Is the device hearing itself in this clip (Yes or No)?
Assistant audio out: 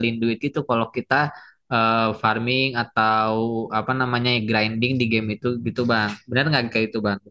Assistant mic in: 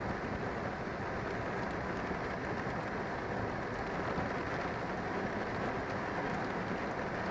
No